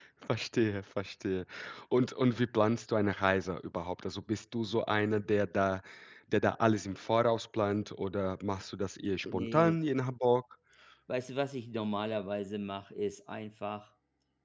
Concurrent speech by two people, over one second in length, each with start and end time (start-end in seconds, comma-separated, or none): none